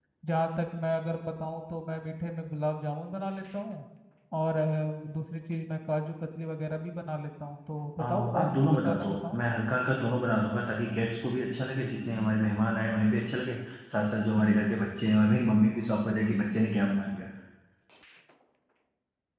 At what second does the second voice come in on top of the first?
8 s

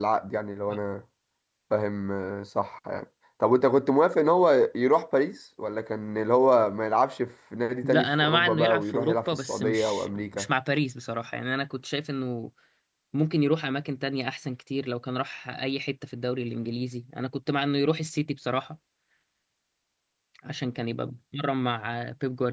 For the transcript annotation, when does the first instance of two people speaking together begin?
8 s

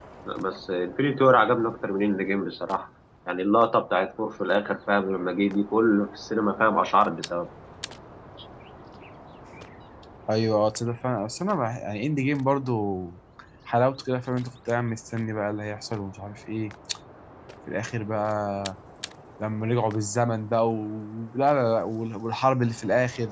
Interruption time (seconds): none

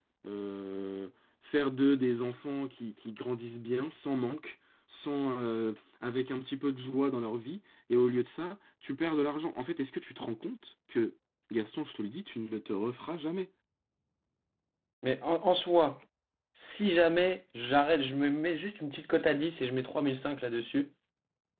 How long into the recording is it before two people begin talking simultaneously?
none

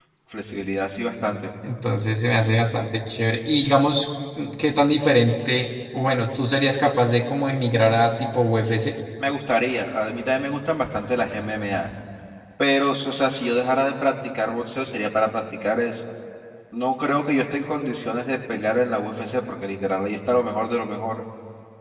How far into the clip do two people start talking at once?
none

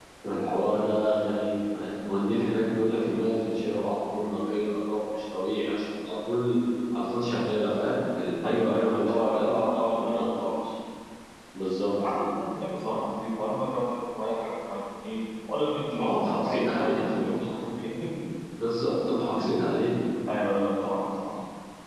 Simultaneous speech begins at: 8 s

